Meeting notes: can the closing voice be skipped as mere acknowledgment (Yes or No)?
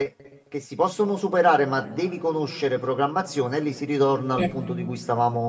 Yes